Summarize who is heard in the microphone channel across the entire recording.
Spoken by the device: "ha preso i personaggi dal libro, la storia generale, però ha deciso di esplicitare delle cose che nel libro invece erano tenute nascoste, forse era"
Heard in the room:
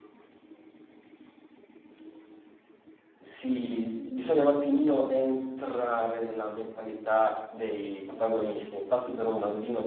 user only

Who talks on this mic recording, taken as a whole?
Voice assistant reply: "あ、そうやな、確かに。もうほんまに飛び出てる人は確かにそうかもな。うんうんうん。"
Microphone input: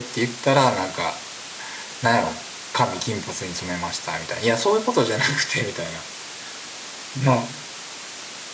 user only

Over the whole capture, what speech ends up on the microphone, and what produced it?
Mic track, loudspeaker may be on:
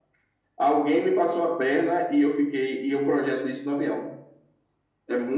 echo only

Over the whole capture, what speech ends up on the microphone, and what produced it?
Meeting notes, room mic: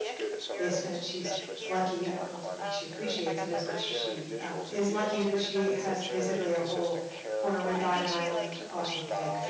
both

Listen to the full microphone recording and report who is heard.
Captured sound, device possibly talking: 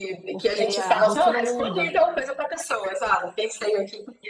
both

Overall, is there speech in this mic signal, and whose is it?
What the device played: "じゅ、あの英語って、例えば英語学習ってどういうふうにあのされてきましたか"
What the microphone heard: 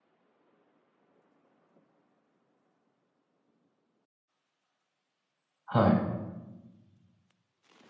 user only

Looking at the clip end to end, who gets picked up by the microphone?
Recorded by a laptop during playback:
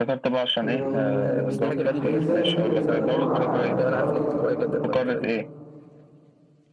both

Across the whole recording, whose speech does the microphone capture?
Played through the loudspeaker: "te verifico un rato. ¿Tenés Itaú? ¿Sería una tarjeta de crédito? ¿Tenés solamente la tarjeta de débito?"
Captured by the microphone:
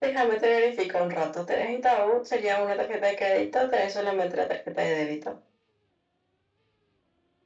echo only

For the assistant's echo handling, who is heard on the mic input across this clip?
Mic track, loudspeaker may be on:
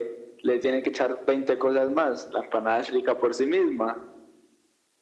echo only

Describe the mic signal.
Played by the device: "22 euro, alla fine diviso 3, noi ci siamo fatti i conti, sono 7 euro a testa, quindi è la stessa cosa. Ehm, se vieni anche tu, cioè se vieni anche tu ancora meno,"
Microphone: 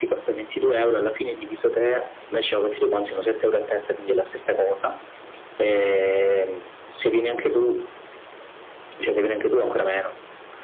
echo only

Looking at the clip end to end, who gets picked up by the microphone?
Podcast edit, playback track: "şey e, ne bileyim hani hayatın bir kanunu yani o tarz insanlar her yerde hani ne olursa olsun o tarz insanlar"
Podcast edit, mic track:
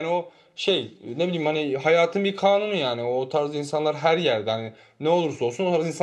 echo only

